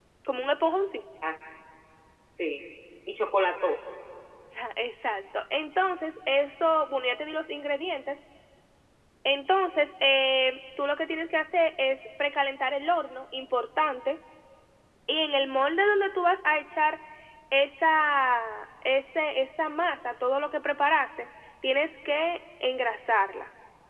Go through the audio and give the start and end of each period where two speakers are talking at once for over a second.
none

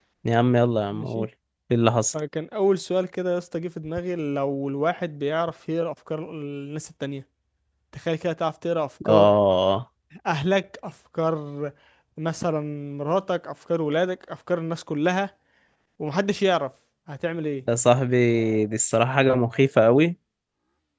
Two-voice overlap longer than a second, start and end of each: none

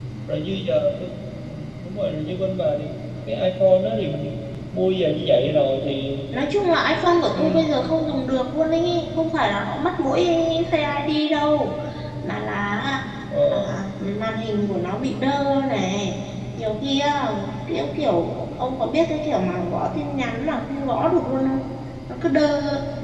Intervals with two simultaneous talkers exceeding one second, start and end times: none

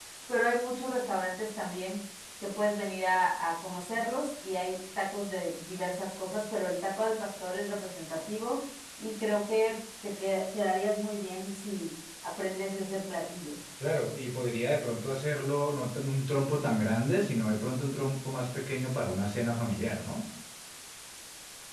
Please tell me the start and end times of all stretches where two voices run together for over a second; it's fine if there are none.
none

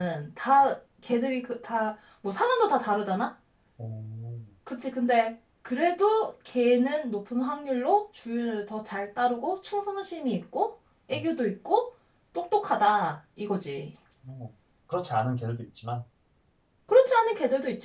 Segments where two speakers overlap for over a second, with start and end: none

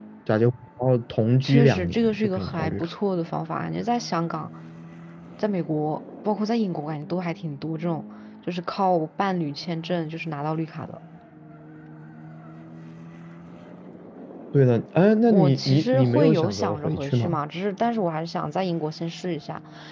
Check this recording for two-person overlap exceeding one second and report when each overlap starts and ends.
1.4-2.9, 15.3-17.4

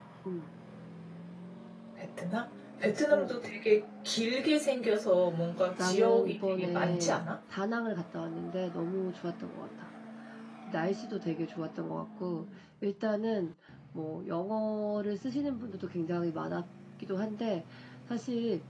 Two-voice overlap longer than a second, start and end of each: 5.8-7.2

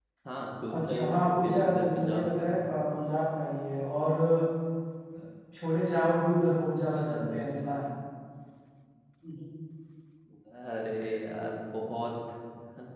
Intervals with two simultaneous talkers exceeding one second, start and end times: 0.8-2.4

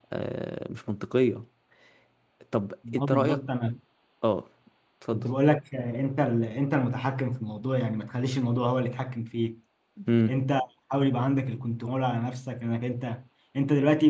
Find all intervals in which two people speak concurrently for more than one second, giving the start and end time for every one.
none

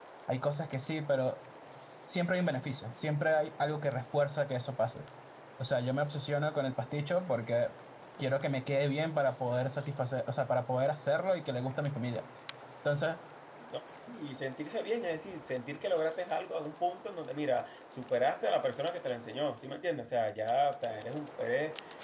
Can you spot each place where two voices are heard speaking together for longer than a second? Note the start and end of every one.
none

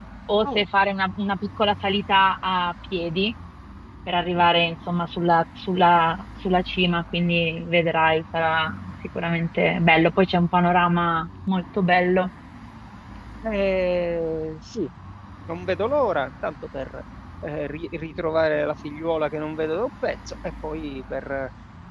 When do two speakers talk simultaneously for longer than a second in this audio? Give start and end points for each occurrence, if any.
none

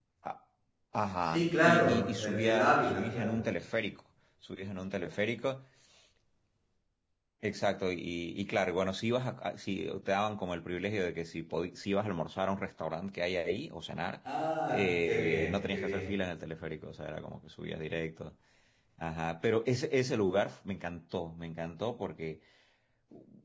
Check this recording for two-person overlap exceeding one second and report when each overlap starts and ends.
1.2-3.4, 14.7-16.1

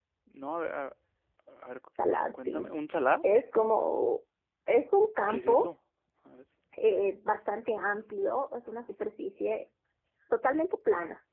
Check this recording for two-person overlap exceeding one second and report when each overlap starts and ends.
none

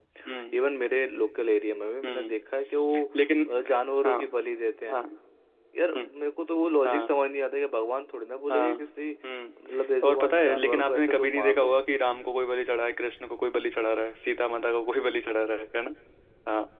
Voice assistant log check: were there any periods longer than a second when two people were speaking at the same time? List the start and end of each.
10.1-11.7

